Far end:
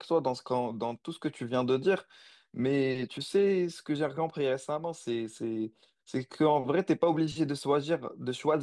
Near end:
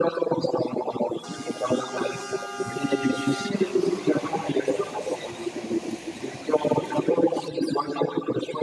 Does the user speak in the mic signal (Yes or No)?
No